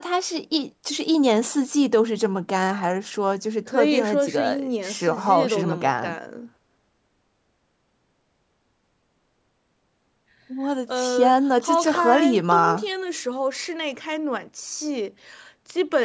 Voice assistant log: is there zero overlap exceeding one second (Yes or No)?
No